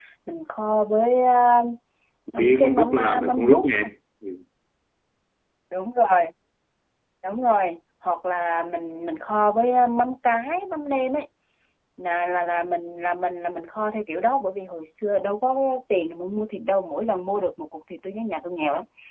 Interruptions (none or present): present